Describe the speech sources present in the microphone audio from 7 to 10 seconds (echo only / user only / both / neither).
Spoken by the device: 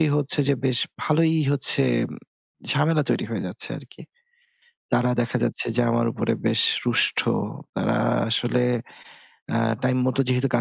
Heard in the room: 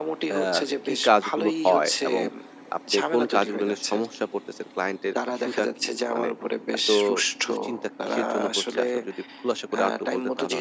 both